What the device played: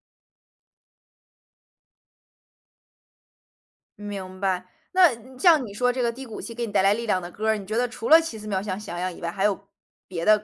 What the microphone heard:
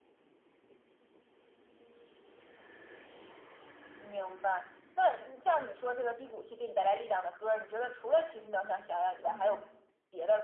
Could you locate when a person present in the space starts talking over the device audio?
9 s

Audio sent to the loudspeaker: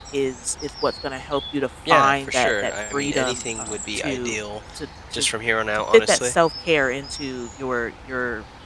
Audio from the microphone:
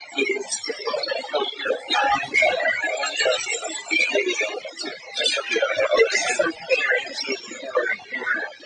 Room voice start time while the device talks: none

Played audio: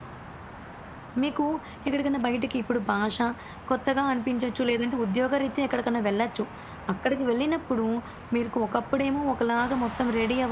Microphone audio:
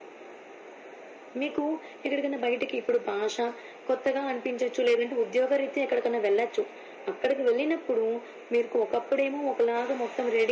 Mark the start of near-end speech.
none

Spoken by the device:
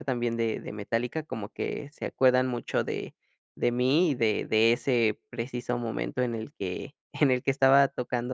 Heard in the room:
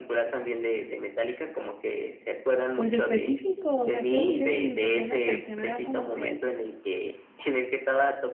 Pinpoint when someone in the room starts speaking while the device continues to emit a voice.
3 s

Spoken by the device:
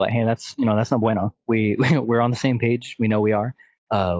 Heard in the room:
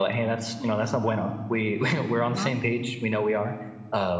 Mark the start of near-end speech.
2 s

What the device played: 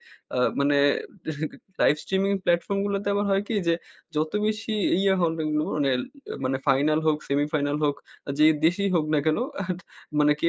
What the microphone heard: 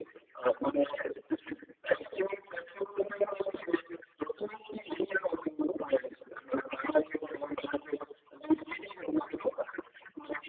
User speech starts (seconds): none

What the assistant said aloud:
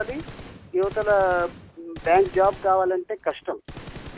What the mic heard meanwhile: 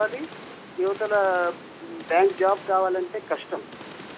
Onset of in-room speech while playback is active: none

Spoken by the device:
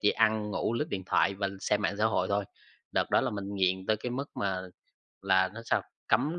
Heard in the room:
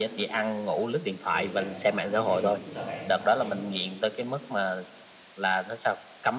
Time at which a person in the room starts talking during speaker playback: 1 s

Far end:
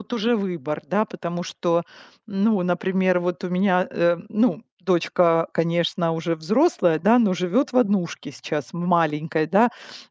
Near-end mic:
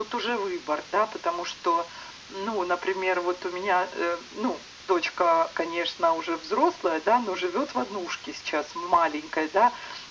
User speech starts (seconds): none

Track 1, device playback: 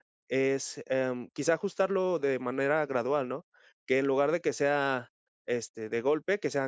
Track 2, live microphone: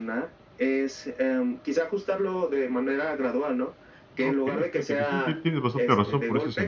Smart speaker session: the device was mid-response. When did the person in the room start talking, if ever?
4 s

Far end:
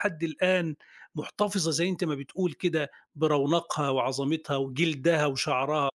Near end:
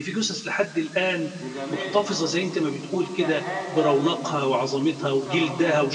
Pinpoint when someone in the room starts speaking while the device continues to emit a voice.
1 s

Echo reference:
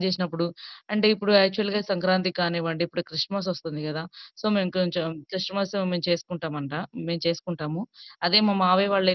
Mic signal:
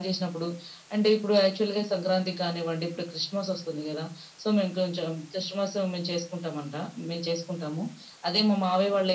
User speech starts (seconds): none

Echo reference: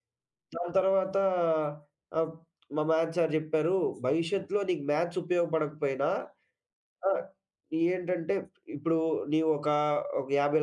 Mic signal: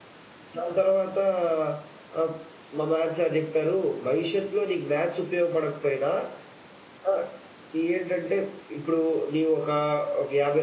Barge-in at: none

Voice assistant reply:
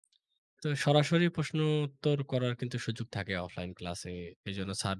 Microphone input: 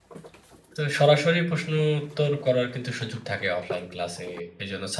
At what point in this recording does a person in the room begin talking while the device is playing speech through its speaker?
none

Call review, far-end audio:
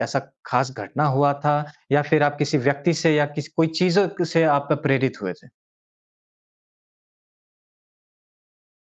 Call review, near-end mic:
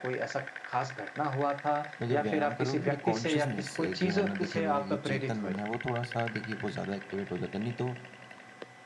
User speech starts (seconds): 2 s

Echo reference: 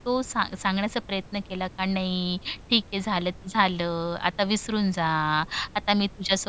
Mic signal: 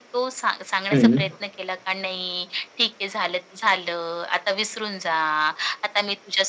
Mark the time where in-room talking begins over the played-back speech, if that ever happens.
1 s

